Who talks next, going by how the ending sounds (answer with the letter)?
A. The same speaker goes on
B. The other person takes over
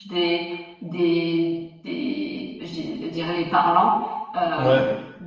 A